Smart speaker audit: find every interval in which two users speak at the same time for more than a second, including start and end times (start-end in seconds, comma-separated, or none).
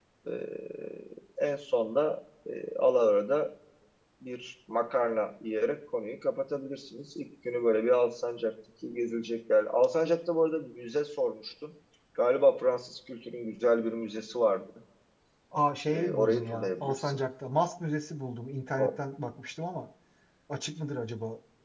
15.9-17.2